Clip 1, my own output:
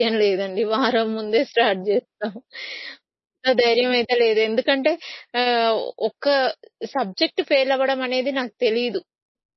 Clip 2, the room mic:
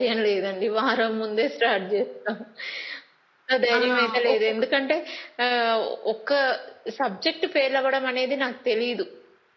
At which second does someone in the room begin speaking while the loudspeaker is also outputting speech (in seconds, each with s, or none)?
3.8 s